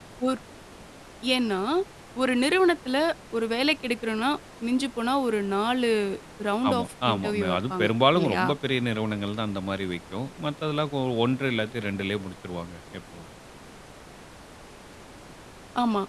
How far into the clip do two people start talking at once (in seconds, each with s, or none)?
6.7 s